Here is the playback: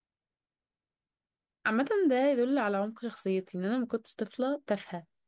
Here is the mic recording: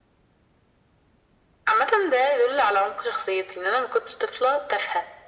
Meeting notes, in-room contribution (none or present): none